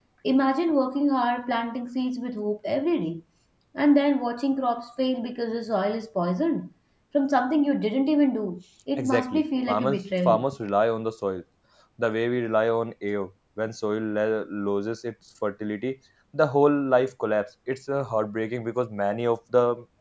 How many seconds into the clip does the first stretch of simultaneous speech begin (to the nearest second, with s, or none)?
9 s